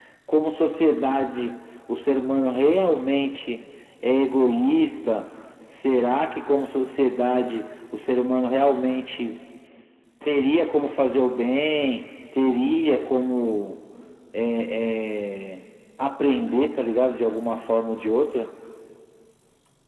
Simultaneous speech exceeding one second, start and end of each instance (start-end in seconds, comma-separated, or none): none